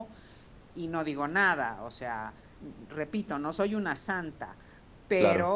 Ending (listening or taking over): listening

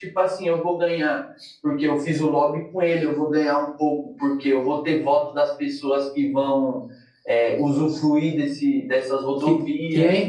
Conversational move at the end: taking over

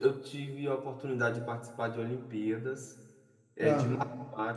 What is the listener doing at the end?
listening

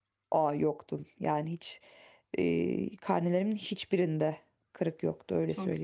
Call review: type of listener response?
taking over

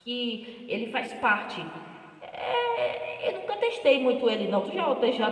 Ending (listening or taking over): taking over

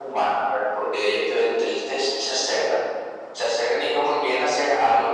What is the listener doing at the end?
listening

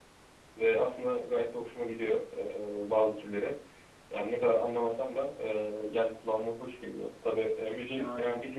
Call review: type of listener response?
listening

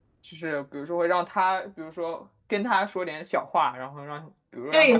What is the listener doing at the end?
taking over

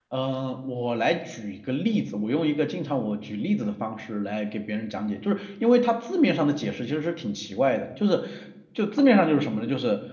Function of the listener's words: listening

